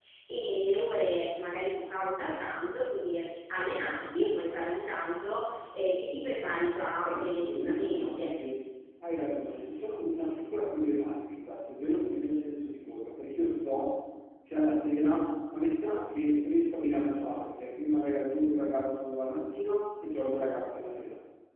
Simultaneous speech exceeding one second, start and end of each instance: 7.1-8.3

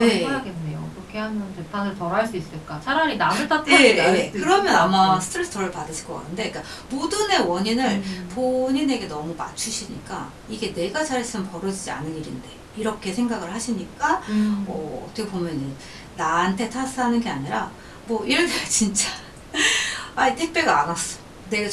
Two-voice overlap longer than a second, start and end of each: 3.7-5.2

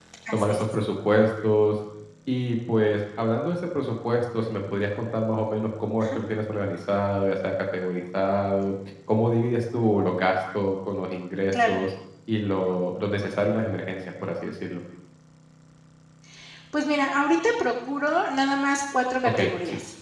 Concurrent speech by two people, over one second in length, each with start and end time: none

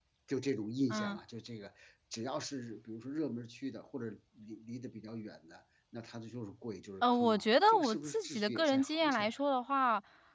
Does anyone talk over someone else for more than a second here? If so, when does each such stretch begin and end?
7.0-9.4

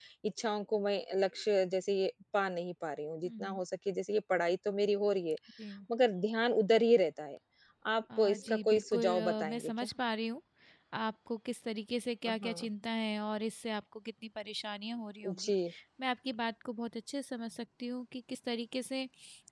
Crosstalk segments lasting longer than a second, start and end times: 8.2-9.7

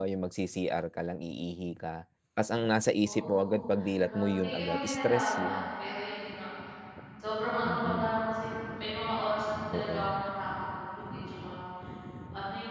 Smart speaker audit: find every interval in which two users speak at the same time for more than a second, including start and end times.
4.0-5.6

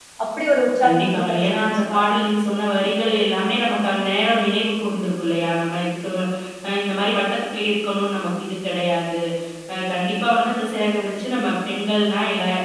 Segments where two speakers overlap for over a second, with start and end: 0.8-2.1

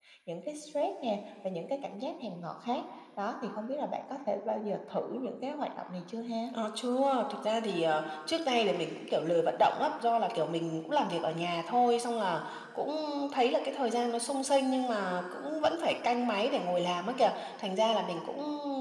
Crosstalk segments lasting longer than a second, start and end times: none

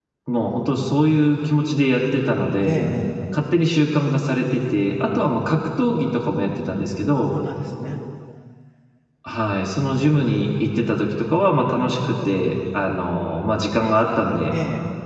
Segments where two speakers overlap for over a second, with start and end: none

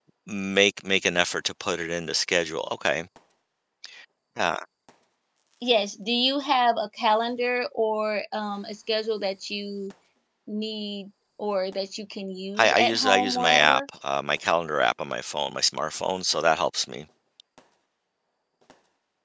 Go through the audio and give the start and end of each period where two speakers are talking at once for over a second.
12.6-13.8

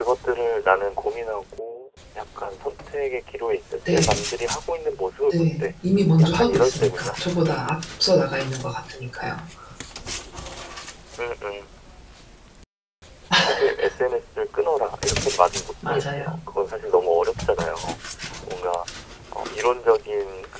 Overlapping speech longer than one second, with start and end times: 6.2-8.2

